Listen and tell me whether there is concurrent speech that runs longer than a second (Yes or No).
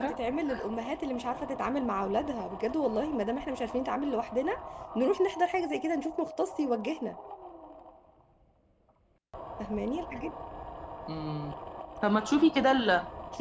No